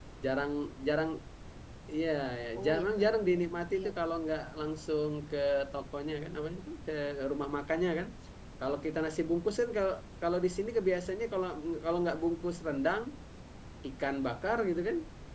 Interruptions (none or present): present